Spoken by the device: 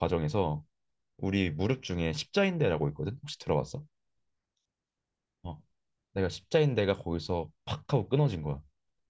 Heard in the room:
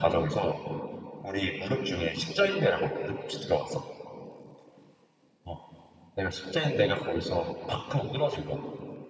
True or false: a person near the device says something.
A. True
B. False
B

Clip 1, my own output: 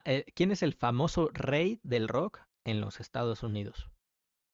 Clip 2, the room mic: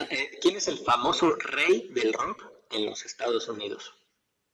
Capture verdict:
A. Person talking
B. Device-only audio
B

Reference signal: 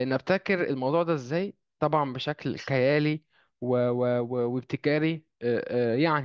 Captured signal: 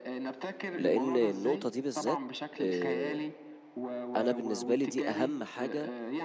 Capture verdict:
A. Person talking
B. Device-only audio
A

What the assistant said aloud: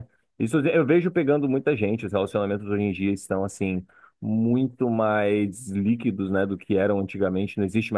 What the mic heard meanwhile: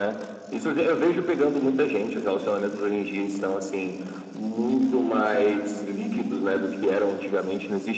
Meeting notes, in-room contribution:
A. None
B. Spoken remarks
A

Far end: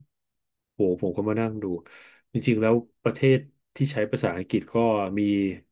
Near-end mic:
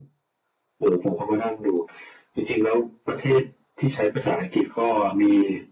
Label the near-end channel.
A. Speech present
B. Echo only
B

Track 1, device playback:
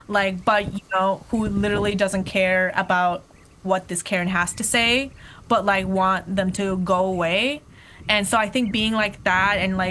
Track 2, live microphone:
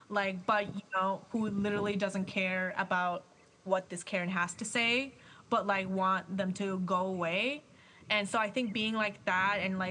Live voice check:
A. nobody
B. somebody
A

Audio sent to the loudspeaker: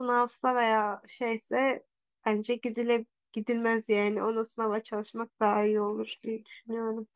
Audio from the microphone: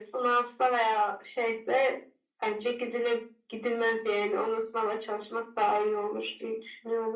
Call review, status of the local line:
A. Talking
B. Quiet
B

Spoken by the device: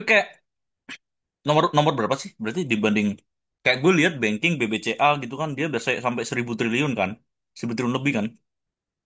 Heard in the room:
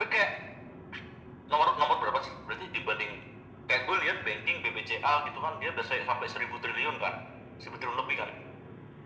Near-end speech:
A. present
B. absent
B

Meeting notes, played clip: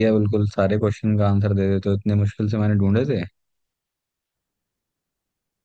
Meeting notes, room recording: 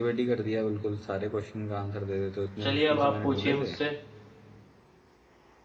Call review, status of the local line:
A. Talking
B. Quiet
A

